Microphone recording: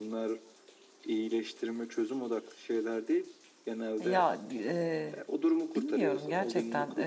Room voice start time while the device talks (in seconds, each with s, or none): 4.0 s